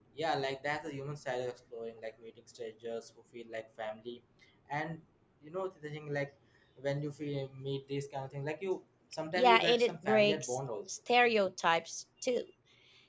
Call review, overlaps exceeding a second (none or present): present